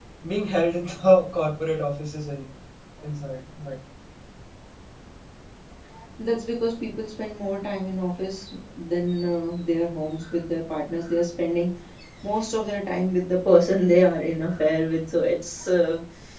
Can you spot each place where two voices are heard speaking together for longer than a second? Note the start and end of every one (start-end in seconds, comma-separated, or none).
none